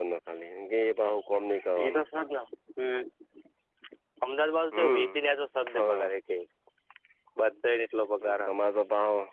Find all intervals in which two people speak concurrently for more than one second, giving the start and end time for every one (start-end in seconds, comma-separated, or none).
none